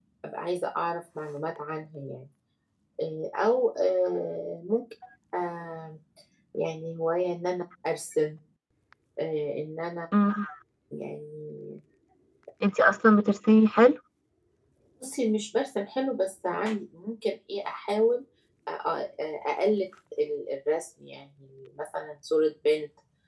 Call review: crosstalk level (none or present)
none